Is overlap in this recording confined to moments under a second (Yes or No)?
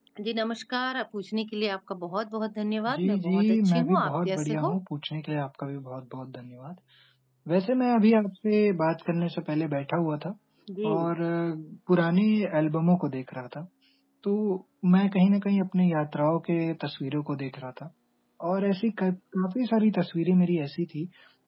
No